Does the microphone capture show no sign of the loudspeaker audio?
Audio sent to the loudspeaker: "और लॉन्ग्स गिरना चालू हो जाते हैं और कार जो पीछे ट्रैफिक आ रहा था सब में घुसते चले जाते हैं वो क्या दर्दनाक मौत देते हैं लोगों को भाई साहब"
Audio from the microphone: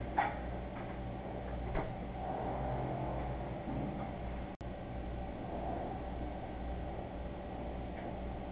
Yes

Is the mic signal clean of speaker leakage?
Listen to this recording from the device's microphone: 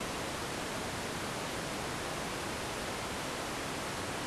Yes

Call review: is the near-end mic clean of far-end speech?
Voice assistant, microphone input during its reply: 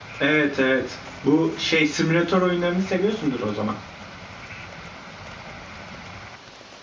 Yes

